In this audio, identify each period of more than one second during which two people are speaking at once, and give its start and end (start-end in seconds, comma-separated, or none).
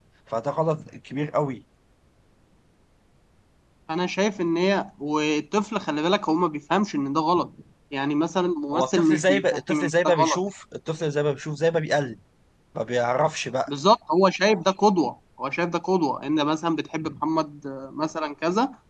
8.7-10.4